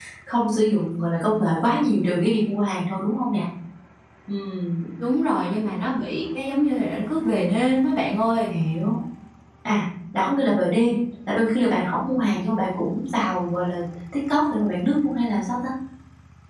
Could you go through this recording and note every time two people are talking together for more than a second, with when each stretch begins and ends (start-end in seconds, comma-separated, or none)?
none